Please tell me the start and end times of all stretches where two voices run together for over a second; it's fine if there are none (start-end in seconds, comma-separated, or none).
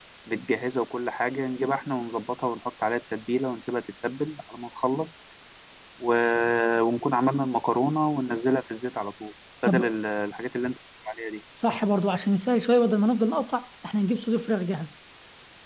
none